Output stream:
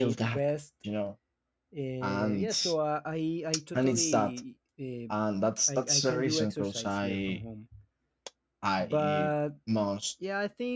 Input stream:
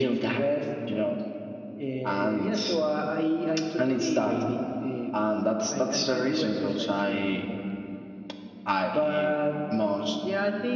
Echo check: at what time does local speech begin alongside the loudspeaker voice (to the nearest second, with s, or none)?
4 s